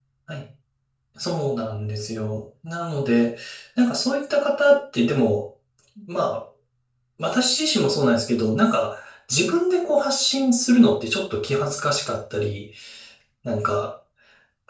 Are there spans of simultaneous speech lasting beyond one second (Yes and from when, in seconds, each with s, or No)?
No